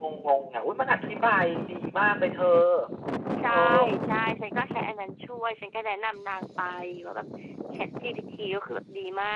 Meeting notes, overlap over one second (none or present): none